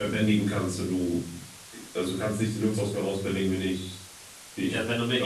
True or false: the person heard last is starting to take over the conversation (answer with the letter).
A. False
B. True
B